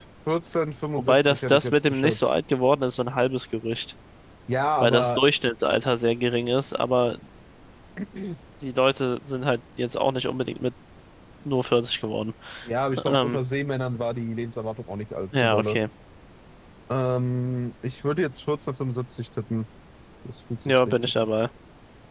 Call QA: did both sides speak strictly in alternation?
No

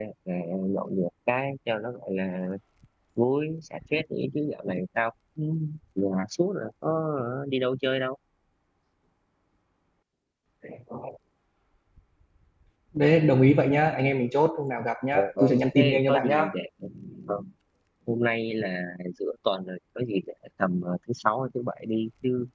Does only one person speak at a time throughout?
No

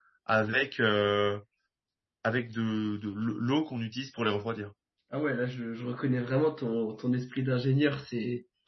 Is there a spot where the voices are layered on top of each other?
No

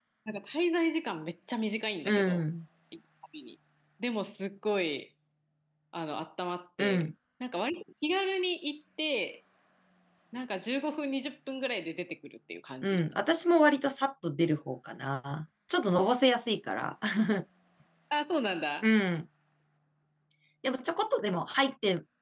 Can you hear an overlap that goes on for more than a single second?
No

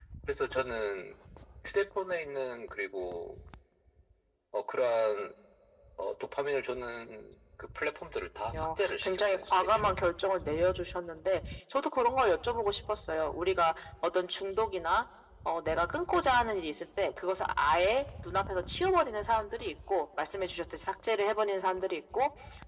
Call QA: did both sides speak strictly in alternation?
No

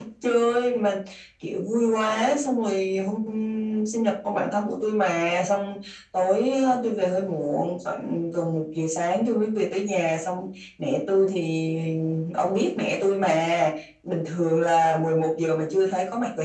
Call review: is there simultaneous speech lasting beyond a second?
No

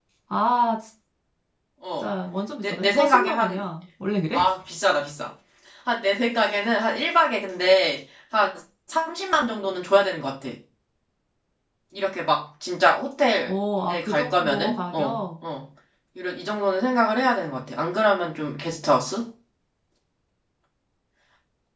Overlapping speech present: Yes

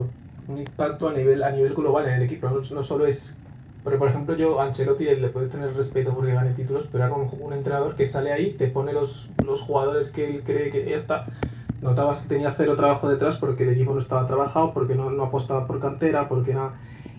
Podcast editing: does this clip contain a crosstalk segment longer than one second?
No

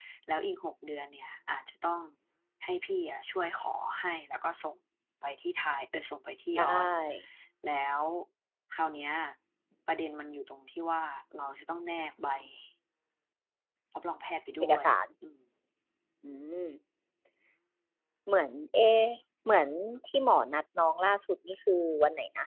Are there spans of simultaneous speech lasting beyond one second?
No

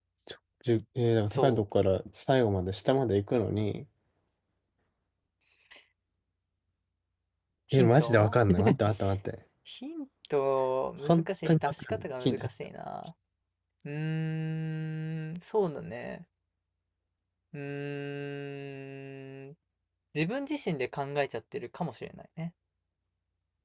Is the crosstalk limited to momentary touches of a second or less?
No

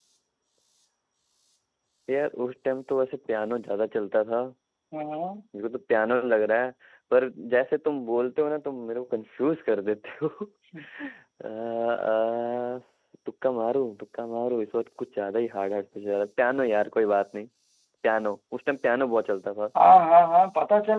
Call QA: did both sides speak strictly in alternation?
Yes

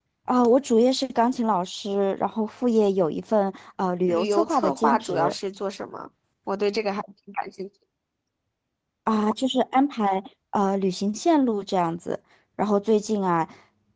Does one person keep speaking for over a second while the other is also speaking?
Yes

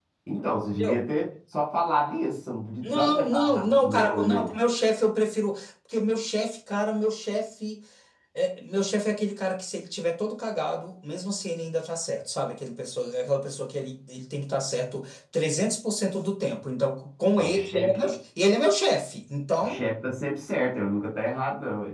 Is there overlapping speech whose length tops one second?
Yes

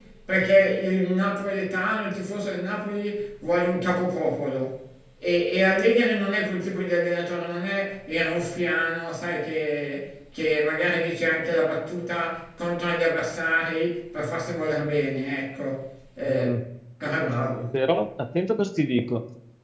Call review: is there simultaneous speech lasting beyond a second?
No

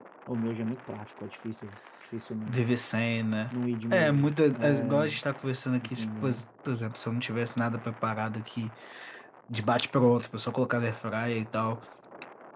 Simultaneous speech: Yes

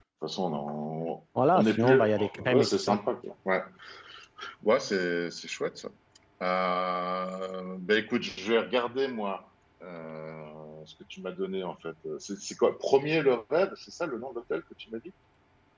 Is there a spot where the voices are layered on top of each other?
Yes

